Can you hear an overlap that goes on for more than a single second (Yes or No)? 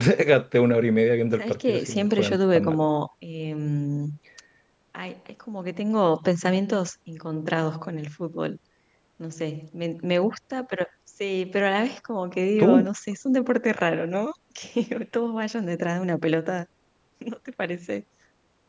Yes